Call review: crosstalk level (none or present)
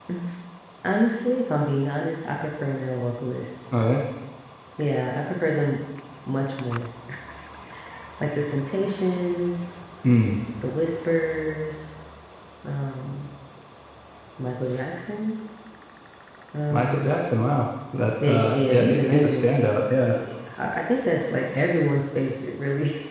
present